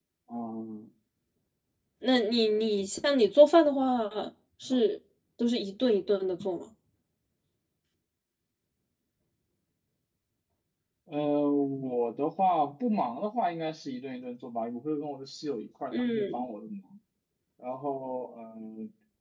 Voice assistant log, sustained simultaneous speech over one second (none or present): none